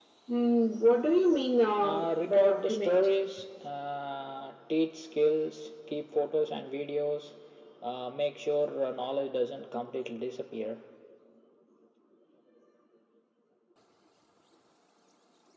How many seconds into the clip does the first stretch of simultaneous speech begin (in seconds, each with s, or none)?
1.8 s